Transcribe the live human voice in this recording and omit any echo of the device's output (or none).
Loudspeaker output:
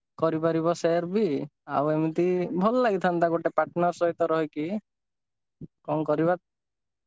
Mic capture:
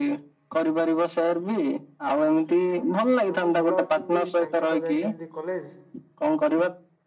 ହଁ ଭଲ ଅଛନ୍ତି ତାଙ୍କେତ ଯାଇଚନ୍ତି କଲେଜ